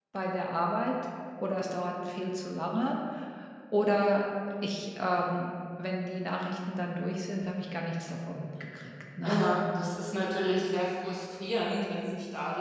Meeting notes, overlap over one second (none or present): none